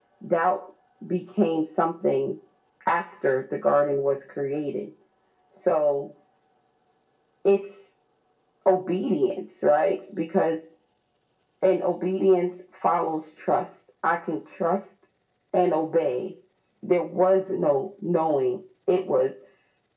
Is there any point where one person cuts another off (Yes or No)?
No